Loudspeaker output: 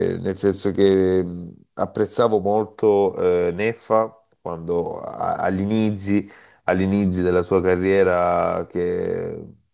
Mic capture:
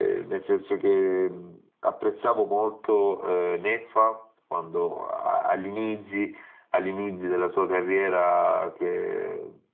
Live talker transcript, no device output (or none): none